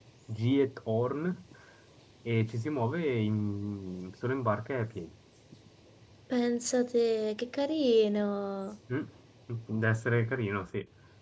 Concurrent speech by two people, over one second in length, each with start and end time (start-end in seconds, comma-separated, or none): none